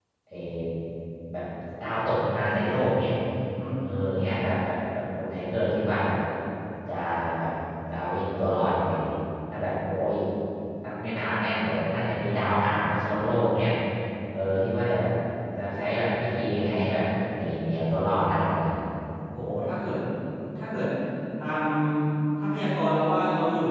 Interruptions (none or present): none